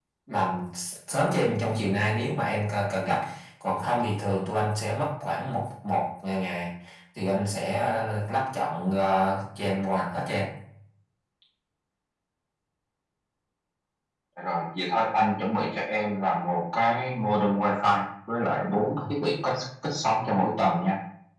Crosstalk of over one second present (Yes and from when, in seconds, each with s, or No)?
No